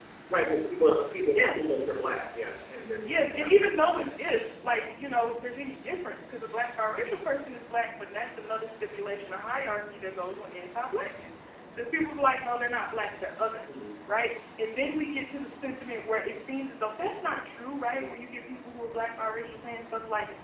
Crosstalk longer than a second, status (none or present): none